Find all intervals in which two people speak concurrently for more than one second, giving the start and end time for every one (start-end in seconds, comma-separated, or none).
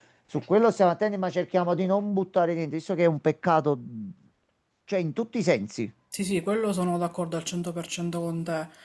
none